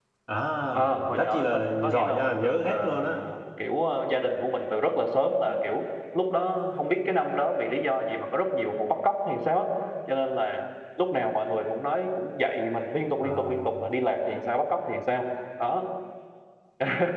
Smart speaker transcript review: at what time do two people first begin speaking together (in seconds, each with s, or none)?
0.7 s